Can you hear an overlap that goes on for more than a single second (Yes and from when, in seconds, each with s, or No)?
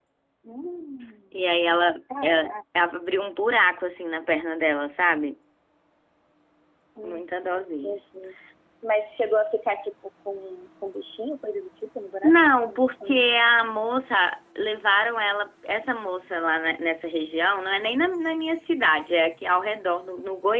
No